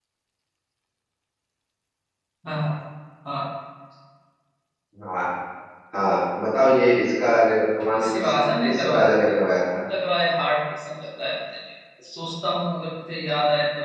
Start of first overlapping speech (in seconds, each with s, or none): 7.9 s